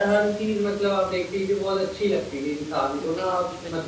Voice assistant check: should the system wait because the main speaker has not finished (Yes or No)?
Yes